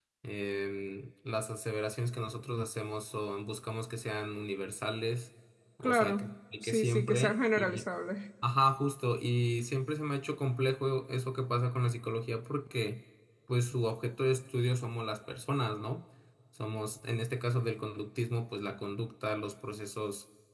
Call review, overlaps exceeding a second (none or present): present